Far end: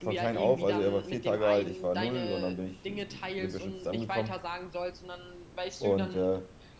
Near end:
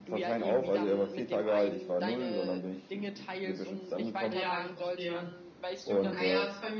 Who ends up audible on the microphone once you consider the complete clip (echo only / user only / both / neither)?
both